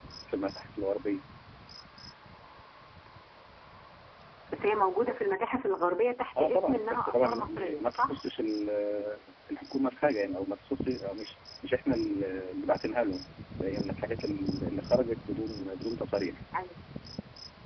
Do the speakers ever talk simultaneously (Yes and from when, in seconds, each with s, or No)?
Yes, from 6.4 s